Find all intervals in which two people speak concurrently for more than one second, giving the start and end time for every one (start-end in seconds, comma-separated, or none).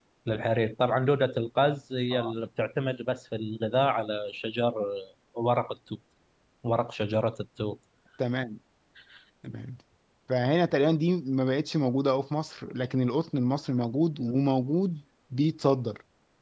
none